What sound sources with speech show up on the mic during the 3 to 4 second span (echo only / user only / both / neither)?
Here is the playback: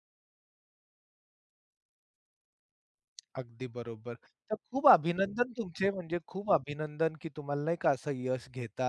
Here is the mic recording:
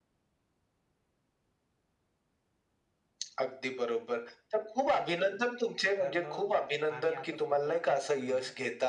echo only